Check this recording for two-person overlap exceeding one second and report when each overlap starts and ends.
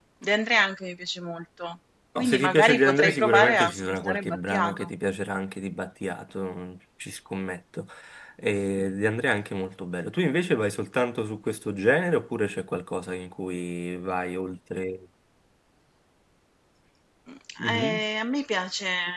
2.2-4.9

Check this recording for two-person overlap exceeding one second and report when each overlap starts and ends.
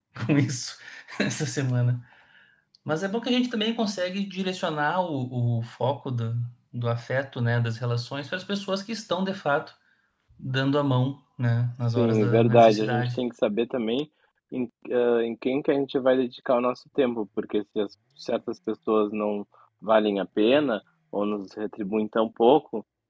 12.0-13.2

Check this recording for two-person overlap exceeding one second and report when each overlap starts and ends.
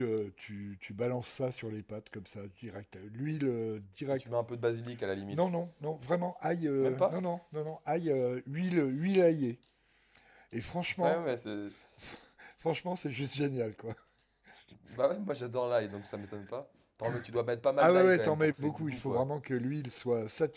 17.8-19.2

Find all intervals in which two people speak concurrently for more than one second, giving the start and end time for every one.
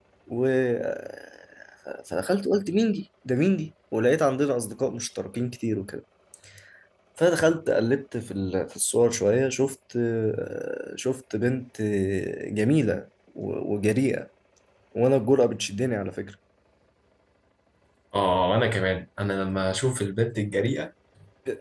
none

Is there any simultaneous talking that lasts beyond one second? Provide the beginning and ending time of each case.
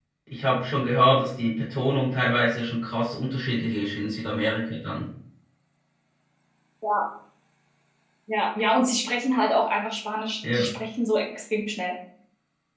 none

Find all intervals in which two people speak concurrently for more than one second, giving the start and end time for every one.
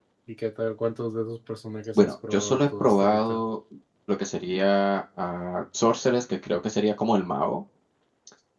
1.9-3.4

